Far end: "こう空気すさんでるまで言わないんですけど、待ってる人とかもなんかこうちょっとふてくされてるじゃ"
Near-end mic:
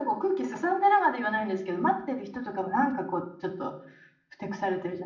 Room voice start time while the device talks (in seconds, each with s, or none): none